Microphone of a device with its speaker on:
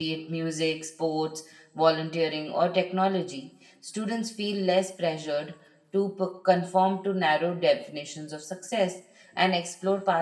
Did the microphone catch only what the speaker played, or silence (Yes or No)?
No